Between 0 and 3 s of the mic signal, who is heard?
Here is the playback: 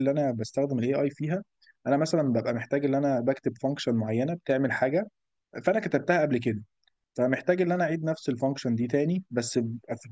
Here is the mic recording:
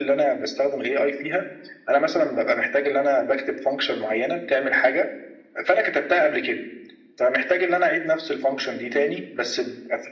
echo only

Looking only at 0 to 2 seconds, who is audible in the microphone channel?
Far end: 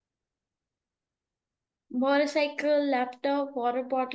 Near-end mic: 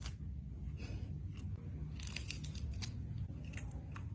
neither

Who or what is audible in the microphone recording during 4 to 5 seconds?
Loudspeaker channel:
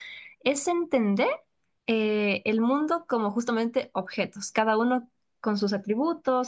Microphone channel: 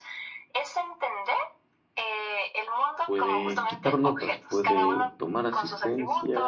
both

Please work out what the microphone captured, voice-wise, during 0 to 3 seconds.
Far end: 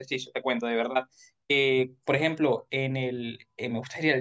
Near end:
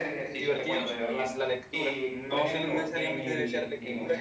both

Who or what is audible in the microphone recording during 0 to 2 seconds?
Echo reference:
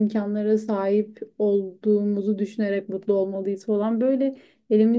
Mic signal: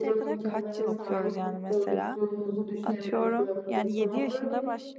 both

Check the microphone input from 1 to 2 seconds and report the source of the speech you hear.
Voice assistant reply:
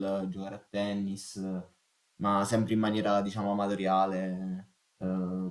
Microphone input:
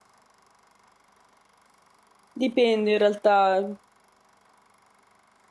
neither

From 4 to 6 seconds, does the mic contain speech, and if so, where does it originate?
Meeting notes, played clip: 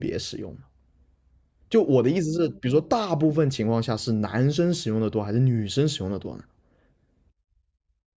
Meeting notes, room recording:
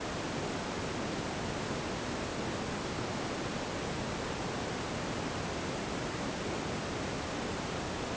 neither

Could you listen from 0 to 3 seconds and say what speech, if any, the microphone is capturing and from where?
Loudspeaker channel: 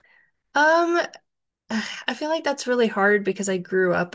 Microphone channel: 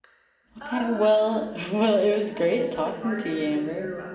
both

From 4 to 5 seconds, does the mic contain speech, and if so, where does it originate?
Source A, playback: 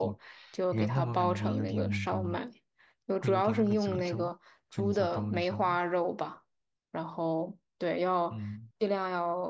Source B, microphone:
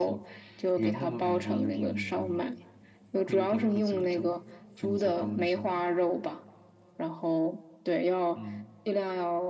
echo only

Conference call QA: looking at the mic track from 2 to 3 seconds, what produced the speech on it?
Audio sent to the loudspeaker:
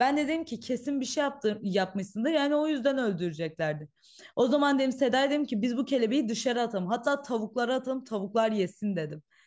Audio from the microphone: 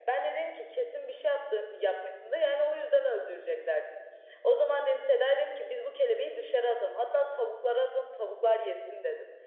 echo only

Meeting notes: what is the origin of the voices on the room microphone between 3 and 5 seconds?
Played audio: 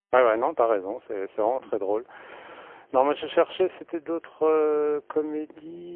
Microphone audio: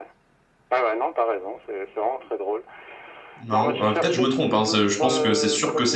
both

